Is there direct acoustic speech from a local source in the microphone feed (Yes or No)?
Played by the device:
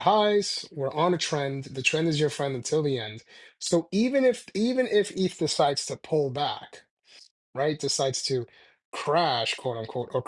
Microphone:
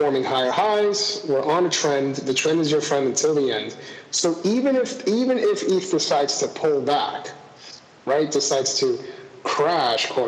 No